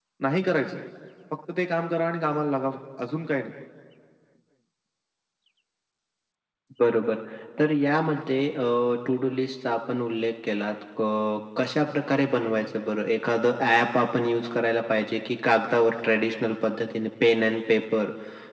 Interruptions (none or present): none